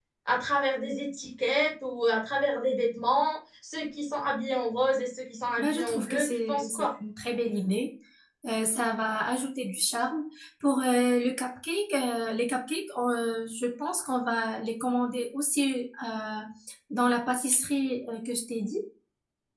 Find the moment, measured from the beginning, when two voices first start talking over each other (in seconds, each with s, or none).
5.6 s